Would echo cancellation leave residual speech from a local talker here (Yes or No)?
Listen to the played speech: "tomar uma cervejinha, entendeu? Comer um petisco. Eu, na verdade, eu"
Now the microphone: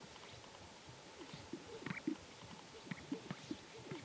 No